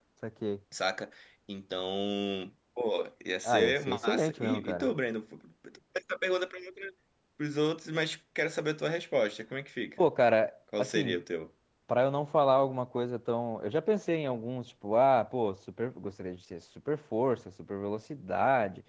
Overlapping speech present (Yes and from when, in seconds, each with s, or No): Yes, from 3.4 s